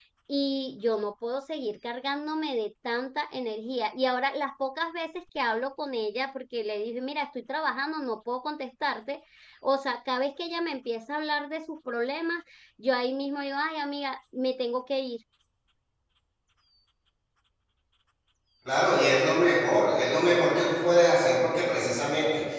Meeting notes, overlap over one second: none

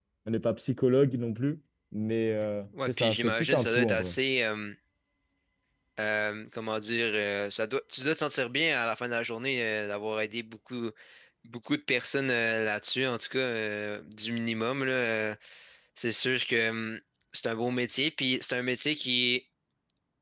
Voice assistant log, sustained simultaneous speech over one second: present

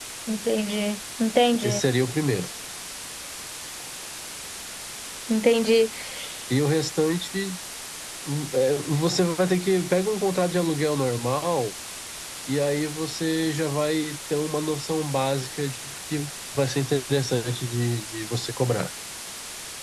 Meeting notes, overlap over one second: none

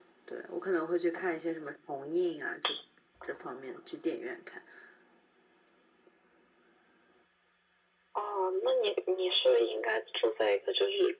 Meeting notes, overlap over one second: none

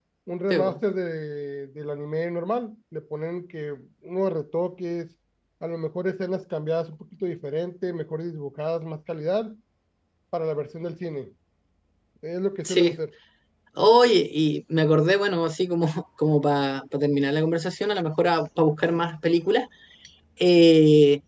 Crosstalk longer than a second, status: none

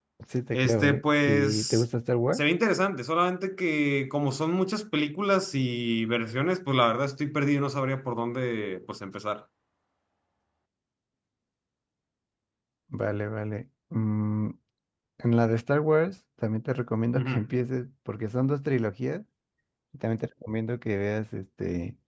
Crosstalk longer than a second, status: present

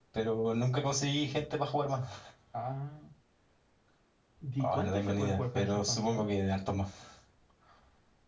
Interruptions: present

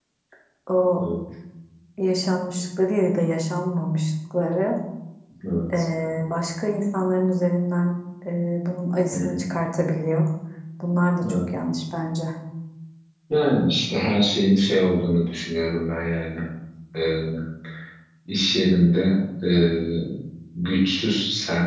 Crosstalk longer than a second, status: none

